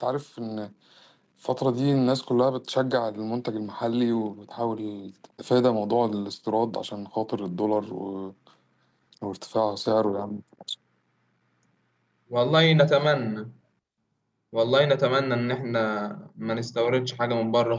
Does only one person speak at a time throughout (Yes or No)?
Yes